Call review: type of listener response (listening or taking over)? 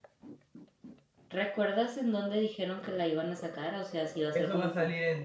taking over